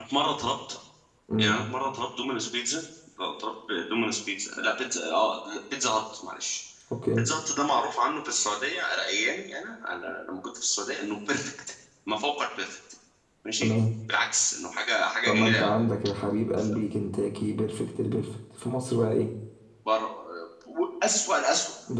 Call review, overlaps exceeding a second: none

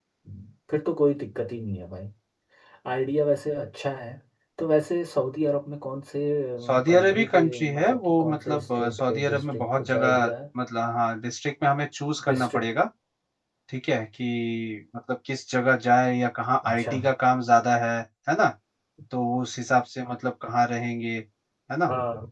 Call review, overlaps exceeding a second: present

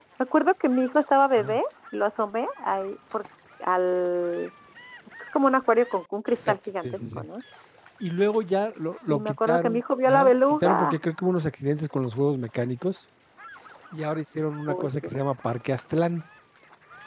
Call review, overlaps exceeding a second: present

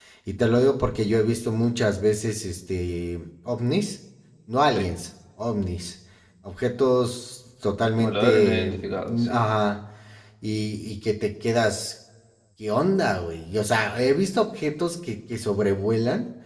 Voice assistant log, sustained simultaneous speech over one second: present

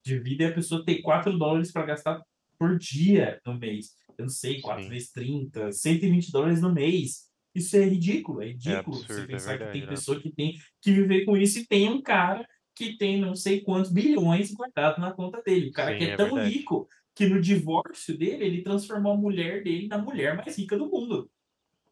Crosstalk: present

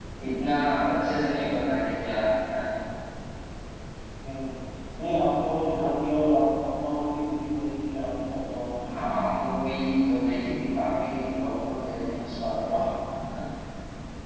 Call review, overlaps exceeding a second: none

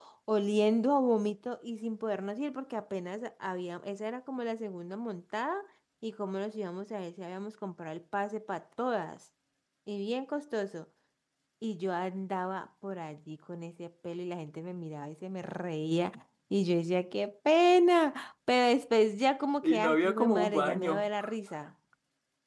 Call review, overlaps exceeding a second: present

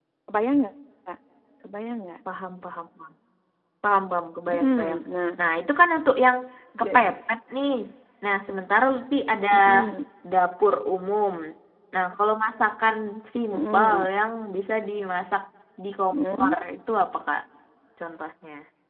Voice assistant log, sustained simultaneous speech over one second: none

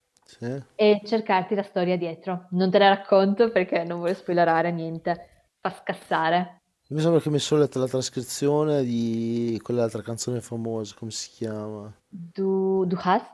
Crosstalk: none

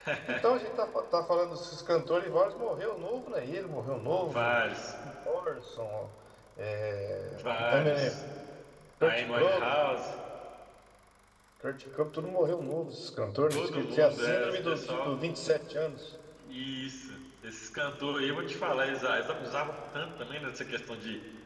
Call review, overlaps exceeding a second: present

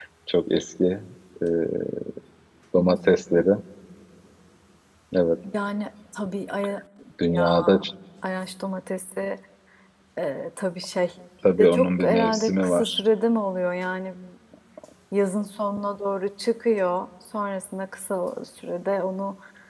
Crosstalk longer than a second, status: present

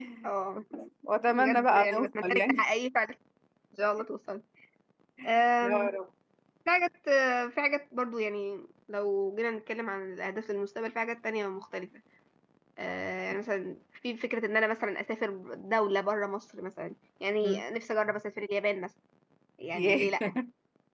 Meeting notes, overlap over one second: present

